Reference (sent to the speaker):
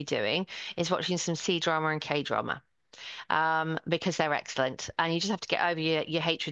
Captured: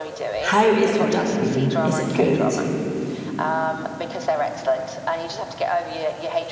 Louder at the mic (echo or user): user